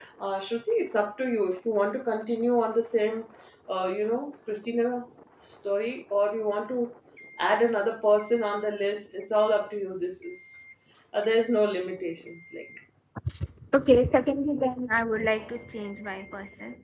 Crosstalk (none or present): none